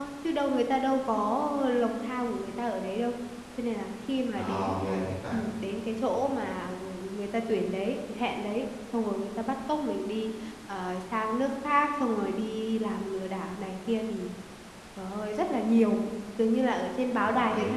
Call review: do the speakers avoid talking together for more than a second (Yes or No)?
Yes